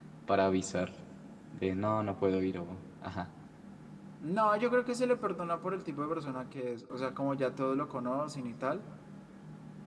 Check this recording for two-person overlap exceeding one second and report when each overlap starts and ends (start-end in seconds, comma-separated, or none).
none